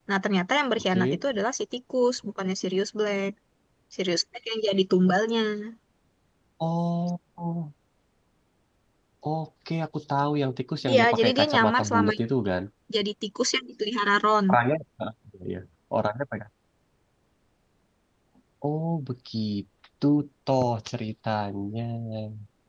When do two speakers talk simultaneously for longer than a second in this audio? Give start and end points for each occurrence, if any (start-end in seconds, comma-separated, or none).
10.9-12.2